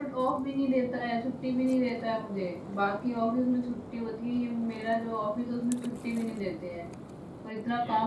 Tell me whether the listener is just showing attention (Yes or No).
Yes